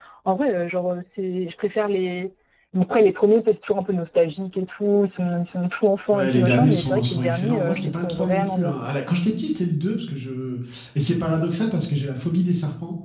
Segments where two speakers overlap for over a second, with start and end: 6.1-8.8

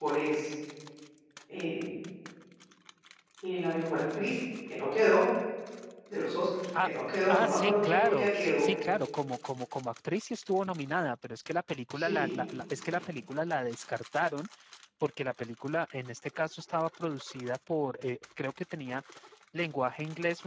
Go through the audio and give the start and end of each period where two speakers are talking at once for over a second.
7.3-8.6

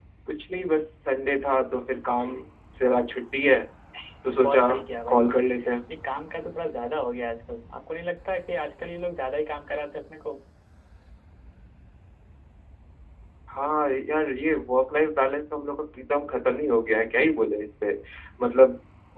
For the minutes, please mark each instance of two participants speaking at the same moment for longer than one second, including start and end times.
none

